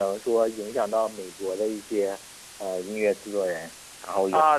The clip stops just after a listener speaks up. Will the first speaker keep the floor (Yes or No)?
No